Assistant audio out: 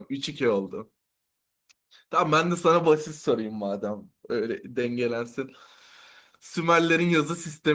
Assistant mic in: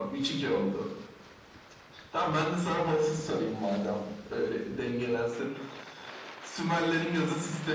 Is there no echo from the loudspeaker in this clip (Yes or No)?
No